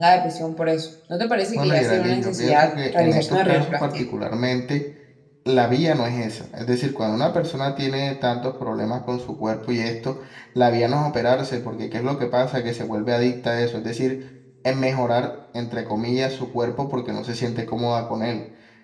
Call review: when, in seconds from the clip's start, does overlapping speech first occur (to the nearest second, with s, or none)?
2 s